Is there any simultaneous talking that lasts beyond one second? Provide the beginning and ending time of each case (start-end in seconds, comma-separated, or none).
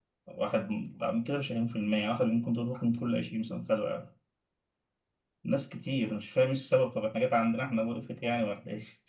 none